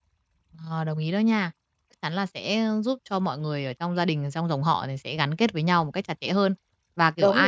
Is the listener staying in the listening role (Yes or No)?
Yes